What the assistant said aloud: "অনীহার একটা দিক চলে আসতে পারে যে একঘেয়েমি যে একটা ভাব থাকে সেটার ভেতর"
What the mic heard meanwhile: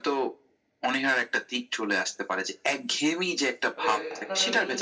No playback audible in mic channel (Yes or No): No